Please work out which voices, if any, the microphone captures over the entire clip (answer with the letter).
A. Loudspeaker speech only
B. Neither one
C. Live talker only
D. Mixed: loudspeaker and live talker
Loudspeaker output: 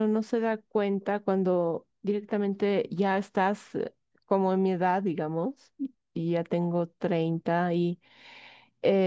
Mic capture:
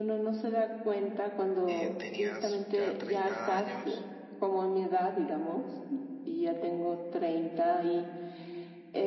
D